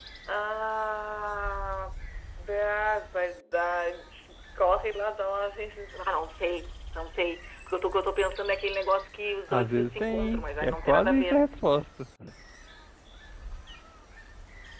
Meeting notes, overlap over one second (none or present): present